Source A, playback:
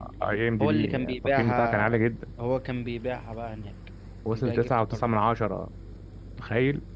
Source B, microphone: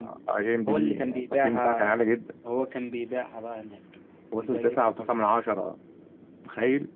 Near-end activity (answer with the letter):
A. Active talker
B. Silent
B